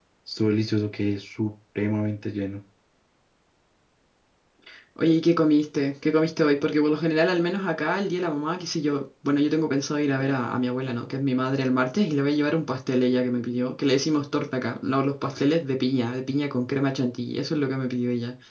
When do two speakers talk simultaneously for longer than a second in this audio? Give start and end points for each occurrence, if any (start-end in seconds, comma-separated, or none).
none